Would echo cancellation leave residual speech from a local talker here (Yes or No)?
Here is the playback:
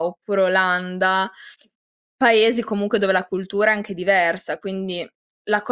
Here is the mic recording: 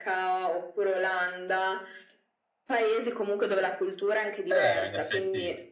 Yes